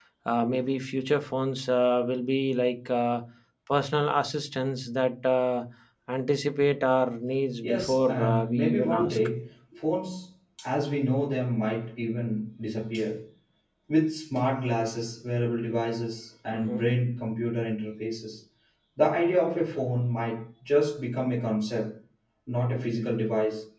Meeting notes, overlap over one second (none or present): present